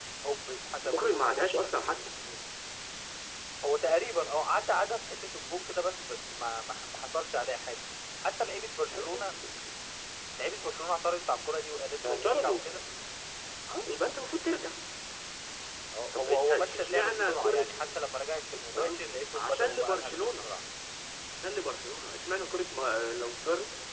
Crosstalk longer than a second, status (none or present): present